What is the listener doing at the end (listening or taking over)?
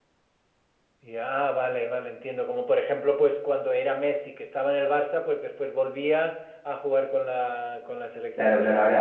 taking over